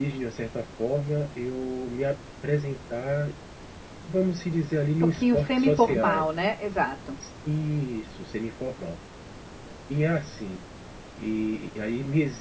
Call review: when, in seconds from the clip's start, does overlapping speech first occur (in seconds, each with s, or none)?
5.0 s